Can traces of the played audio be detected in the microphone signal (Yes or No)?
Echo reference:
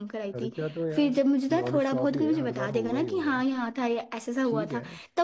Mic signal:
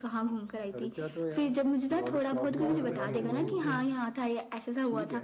Yes